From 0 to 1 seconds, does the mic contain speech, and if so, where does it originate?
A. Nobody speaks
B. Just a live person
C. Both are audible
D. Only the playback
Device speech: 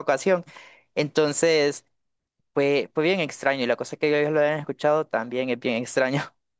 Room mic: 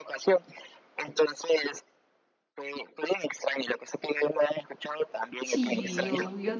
D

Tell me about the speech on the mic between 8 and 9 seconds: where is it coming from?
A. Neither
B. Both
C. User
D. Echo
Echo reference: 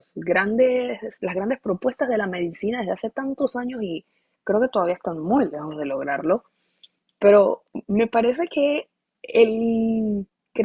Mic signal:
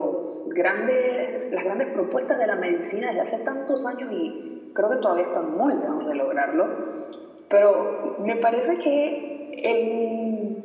D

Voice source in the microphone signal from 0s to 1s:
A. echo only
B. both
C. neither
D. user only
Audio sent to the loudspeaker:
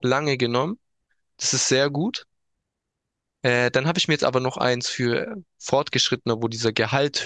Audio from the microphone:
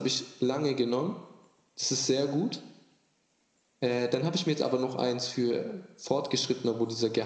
A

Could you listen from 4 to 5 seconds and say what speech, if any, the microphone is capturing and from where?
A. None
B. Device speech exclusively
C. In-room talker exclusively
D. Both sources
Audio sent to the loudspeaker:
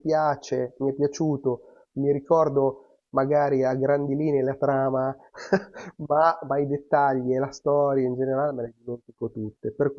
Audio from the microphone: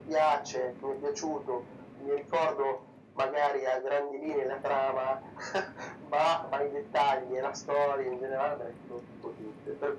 B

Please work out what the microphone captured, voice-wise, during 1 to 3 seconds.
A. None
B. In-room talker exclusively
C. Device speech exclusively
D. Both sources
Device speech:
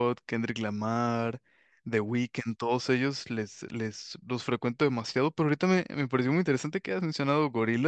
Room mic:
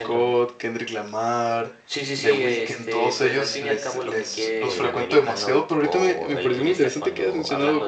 D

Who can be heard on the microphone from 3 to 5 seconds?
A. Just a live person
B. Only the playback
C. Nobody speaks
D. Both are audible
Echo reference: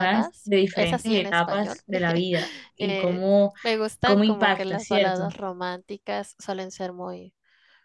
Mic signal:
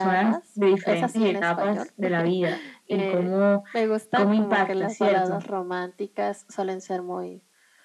B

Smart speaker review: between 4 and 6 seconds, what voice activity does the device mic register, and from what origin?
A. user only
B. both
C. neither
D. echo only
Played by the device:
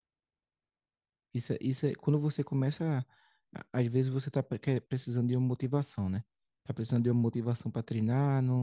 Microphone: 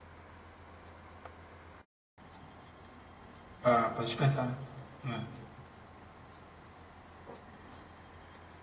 A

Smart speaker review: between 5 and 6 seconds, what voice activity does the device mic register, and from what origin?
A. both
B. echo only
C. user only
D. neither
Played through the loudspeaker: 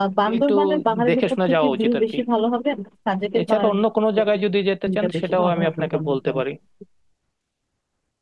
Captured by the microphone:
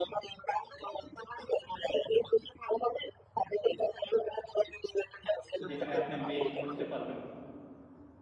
A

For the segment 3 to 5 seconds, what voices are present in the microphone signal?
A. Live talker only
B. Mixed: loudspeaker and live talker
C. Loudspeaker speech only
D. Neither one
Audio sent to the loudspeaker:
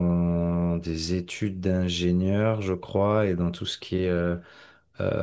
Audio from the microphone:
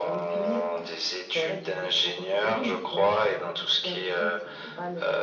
B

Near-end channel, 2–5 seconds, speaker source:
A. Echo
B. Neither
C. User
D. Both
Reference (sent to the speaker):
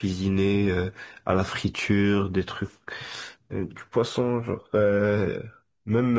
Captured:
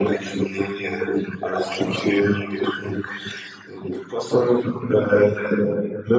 A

